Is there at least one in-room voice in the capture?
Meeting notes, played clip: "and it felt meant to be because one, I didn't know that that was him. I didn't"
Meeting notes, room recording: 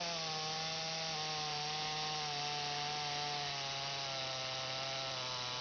No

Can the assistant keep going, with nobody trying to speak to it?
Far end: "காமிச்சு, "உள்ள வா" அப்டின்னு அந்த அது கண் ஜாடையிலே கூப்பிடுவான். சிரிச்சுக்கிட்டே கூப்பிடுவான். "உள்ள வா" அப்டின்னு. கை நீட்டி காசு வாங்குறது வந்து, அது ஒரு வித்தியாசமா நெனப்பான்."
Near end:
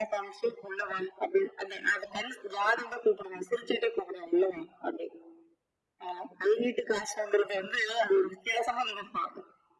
Yes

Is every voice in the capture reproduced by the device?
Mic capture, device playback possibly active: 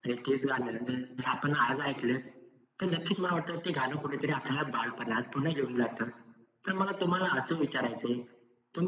Yes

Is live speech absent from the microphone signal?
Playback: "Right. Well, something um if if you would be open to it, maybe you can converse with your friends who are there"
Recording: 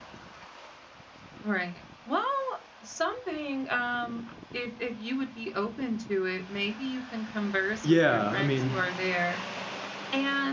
No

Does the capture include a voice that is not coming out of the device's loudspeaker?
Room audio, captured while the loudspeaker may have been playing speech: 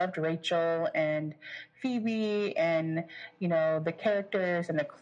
No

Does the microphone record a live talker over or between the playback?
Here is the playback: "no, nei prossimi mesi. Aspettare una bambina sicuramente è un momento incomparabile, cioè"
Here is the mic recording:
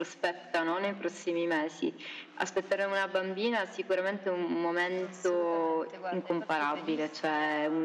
Yes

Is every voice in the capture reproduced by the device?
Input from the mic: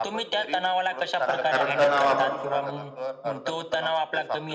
No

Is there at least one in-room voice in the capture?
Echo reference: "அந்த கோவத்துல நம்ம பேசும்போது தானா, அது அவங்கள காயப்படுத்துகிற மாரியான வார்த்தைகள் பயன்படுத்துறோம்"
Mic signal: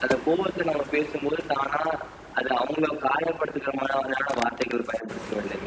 No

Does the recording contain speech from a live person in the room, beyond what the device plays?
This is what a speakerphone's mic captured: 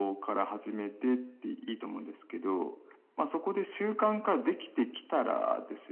No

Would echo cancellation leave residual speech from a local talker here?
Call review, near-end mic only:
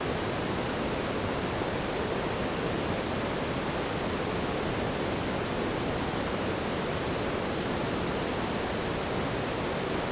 No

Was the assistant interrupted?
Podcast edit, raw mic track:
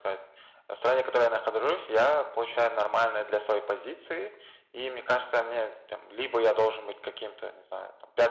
No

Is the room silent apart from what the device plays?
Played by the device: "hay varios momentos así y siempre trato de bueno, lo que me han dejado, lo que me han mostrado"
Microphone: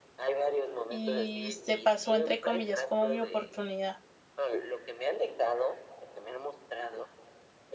No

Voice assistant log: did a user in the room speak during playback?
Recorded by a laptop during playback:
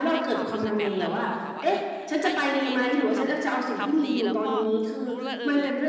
Yes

